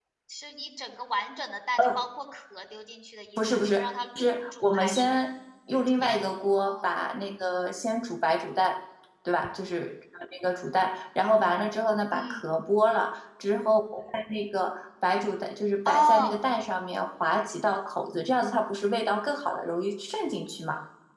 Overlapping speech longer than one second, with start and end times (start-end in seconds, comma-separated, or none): 3.4-5.2